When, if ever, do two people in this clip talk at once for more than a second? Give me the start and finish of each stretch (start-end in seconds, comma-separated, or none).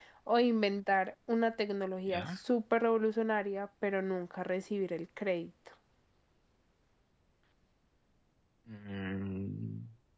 none